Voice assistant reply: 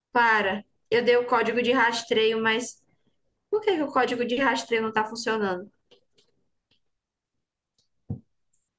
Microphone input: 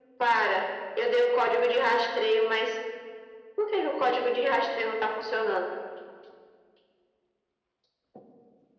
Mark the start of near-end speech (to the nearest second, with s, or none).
none